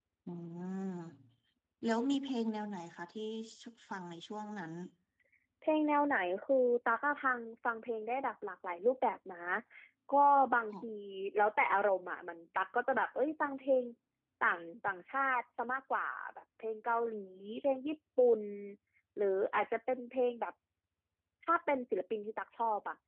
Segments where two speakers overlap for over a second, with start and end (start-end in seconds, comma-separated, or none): none